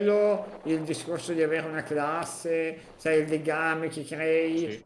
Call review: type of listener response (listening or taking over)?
listening